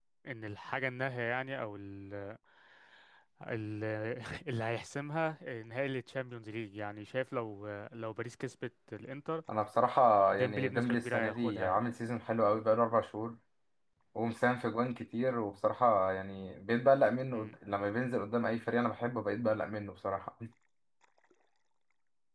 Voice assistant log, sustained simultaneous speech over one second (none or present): present